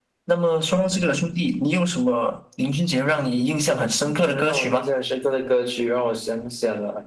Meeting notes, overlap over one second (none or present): present